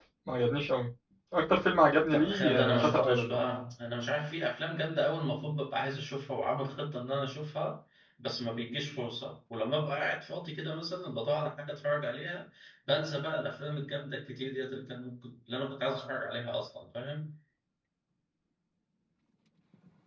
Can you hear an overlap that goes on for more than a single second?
Yes, from 2.1 s

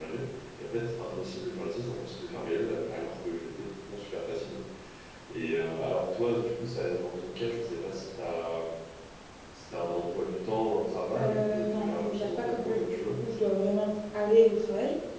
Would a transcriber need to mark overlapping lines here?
Yes, from 11.2 s

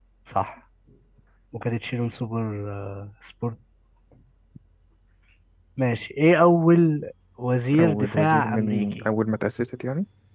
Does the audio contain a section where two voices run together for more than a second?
Yes, from 7.7 s

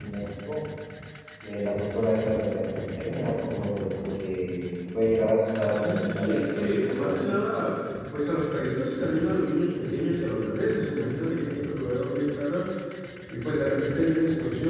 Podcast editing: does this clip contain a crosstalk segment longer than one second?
Yes, from 5.7 s

